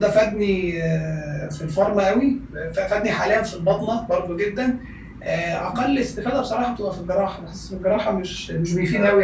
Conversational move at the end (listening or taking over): listening